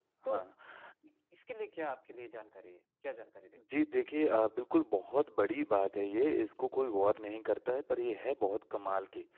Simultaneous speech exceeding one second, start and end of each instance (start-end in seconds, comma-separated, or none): none